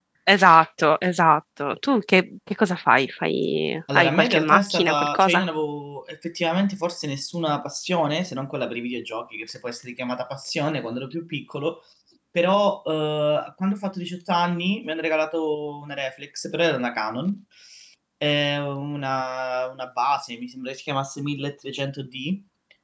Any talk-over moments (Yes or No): Yes